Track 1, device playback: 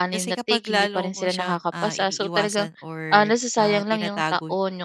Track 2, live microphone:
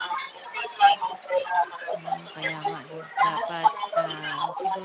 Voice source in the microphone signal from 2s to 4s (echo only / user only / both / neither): both